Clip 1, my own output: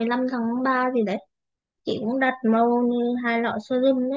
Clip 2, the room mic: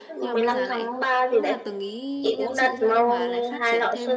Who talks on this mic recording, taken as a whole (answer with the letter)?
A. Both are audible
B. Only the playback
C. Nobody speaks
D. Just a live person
A